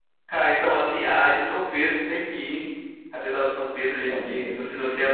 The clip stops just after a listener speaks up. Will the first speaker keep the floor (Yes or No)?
Yes